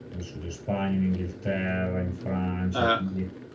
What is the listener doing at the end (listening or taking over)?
listening